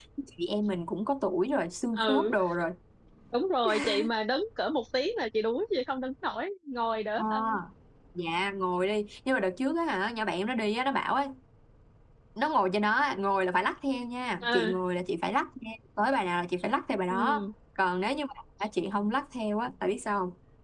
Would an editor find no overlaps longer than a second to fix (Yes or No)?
Yes